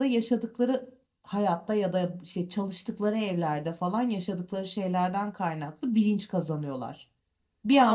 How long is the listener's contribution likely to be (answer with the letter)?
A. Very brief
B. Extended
B